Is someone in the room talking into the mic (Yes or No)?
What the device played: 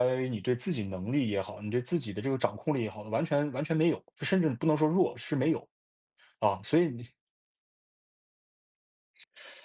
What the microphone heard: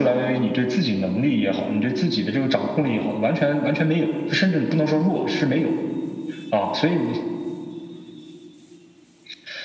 No